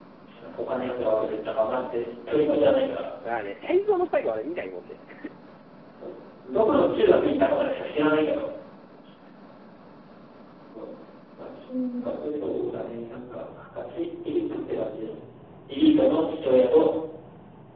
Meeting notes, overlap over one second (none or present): none